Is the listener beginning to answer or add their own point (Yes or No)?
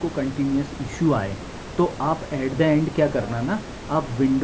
No